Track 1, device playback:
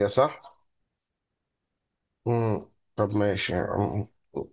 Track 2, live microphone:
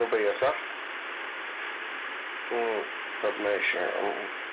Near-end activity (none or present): none